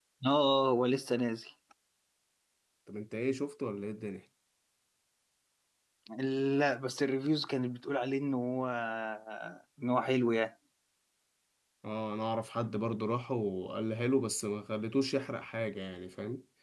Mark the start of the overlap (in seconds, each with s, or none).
none